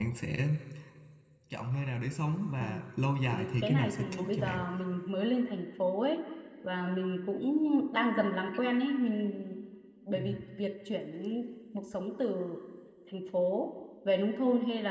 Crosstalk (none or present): present